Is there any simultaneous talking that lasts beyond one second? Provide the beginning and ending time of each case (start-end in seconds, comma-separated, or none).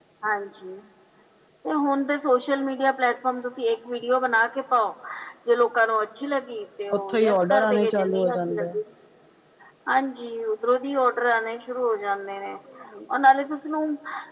6.9-8.7